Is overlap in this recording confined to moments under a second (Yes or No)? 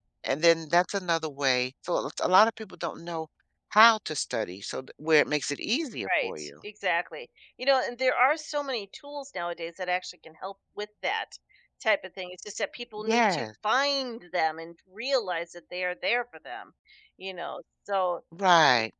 Yes